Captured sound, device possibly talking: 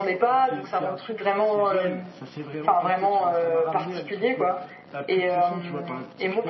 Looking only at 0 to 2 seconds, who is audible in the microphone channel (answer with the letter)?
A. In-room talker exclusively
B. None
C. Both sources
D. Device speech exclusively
D